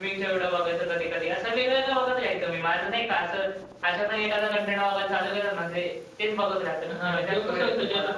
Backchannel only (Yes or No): No